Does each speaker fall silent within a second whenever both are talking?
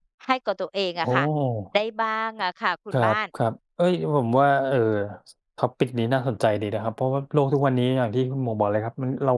Yes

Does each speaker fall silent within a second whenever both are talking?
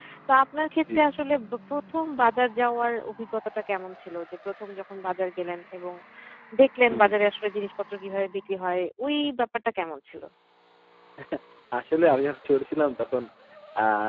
Yes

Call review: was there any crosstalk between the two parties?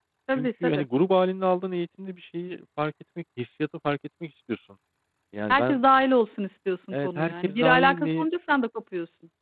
Yes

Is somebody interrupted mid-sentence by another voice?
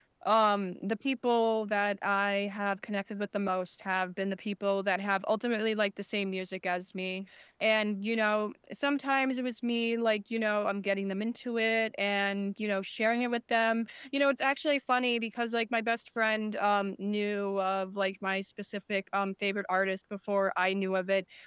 No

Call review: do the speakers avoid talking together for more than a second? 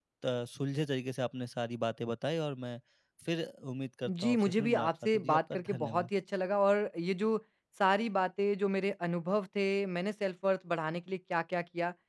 No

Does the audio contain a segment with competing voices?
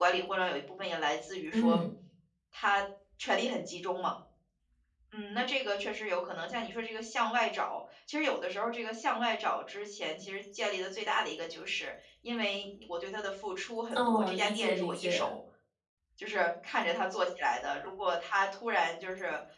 Yes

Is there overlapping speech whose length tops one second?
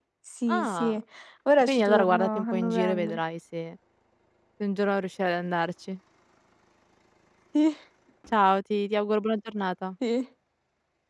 Yes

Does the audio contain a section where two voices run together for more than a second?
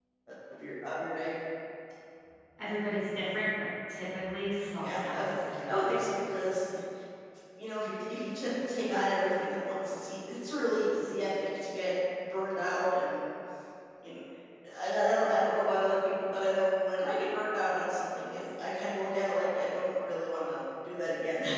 Yes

